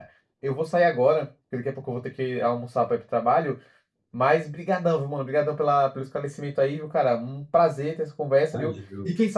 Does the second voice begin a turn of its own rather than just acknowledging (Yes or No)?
No